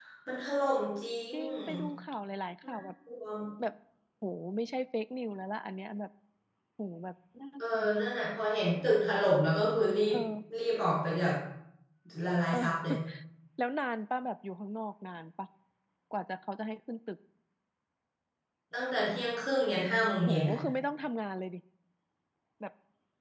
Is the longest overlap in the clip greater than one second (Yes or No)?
No